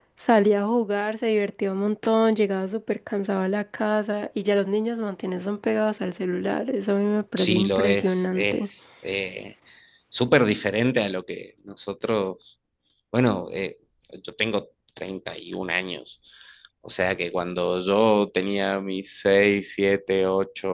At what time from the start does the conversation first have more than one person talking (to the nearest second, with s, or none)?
7 s